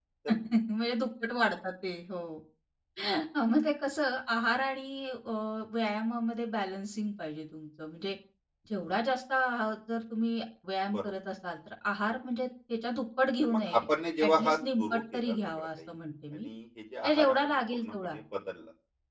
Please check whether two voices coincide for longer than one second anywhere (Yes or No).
Yes